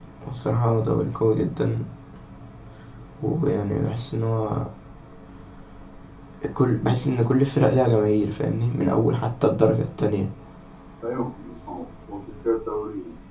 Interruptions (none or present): none